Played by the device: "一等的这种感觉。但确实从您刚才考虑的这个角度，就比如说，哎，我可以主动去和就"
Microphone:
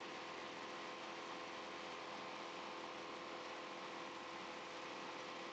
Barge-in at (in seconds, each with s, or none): none